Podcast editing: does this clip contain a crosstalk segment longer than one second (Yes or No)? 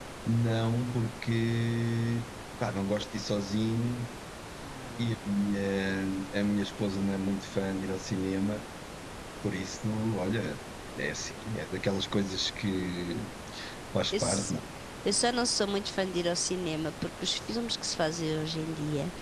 No